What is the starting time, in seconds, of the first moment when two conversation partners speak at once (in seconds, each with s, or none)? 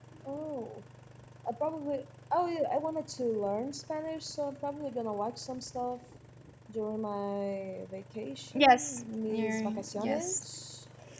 8.6 s